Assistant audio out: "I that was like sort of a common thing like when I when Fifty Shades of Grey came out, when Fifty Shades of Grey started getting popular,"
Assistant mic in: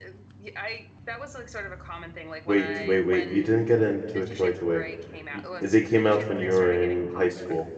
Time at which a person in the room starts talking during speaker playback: 2.4 s

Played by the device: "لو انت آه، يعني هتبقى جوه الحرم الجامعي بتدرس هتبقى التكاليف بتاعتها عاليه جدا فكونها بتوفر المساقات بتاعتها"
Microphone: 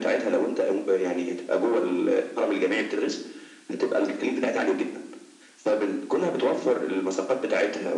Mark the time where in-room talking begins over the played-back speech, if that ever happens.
none

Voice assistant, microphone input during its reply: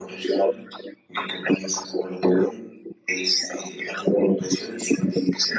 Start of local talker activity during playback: none

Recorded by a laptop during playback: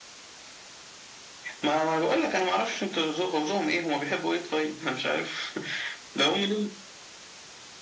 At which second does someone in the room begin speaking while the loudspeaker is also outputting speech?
none

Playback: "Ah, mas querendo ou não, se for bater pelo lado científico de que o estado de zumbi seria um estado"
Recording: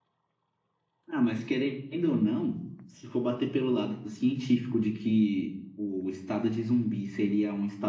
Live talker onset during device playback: none

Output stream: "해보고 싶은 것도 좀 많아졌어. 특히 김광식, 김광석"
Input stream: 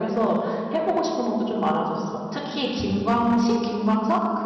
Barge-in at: none

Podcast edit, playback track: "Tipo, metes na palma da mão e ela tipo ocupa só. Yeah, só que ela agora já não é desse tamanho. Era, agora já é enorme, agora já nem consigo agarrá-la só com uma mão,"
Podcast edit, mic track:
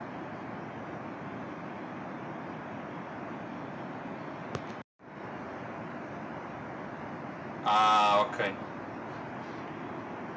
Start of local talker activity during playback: 7.6 s

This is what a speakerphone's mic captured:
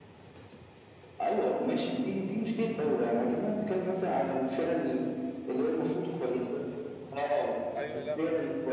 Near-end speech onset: 7.8 s

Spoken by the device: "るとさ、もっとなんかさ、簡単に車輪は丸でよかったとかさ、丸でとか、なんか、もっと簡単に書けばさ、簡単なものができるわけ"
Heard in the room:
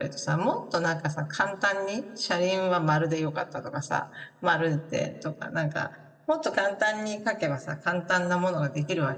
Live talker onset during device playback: none

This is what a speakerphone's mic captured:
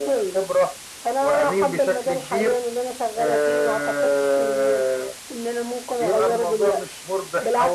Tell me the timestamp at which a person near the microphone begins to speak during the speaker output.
none

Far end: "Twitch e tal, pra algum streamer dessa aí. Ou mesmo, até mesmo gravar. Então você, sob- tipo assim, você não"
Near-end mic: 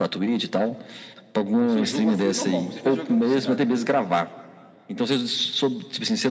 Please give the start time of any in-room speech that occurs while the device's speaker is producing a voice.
1.6 s

